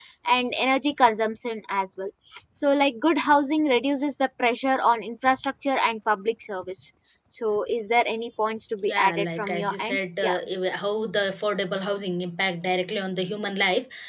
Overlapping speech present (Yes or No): Yes